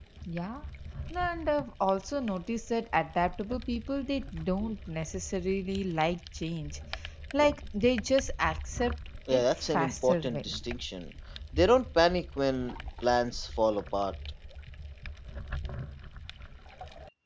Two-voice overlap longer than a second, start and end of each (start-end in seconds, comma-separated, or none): 9.3-10.5